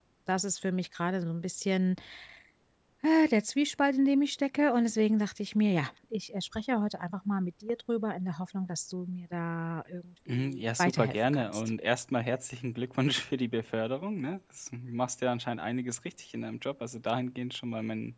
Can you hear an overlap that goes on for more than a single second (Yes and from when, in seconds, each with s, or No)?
Yes, from 10.3 s